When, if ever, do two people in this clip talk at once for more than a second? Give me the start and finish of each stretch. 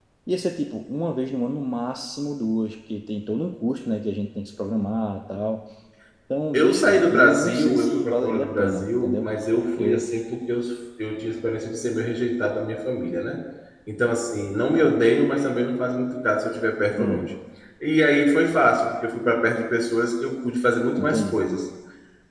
6.5-9.3

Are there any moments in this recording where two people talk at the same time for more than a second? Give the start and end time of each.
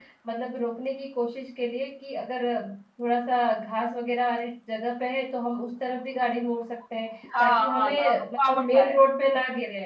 7.4-8.9

